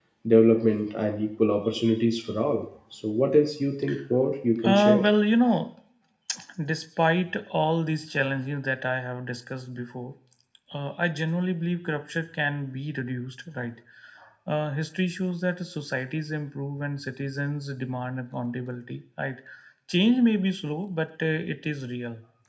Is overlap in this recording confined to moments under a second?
Yes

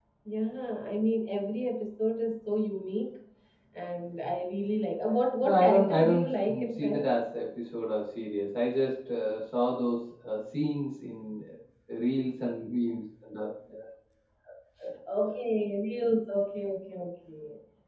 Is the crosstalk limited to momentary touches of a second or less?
No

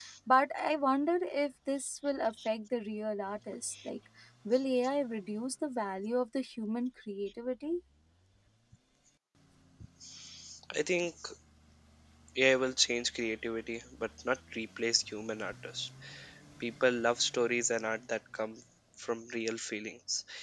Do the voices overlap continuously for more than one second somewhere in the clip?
No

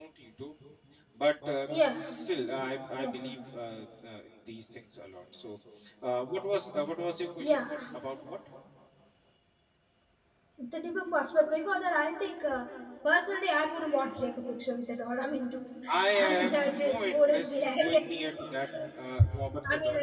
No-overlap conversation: No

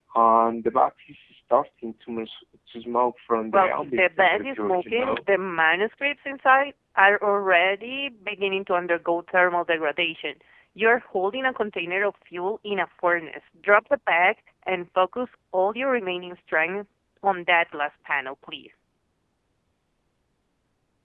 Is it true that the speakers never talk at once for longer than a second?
No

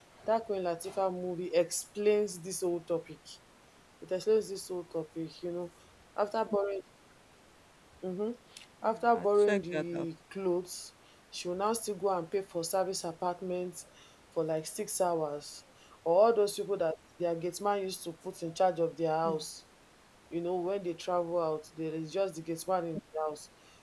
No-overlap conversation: No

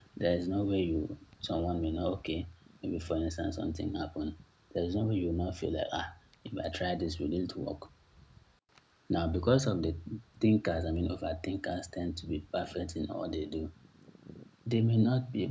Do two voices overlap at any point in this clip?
No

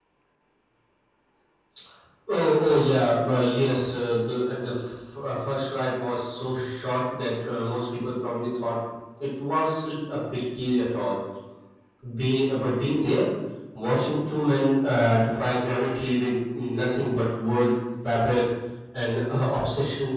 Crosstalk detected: No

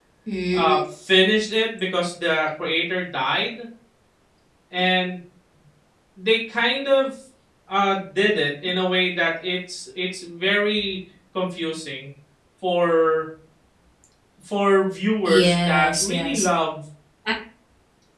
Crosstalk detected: Yes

